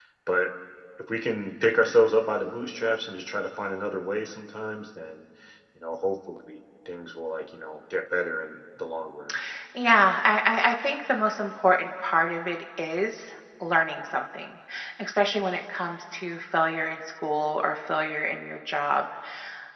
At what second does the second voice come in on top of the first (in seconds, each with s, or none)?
none